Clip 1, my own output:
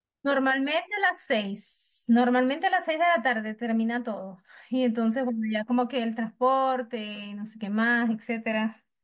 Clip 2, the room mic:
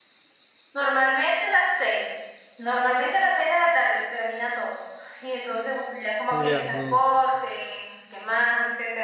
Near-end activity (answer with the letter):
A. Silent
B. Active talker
B